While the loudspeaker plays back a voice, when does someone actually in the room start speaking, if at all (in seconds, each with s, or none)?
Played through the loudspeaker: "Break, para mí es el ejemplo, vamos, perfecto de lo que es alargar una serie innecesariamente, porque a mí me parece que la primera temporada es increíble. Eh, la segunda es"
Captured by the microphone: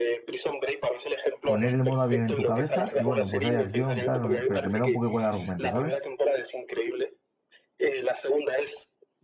1.4 s